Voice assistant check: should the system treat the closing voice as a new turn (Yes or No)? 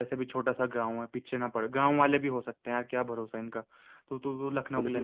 Yes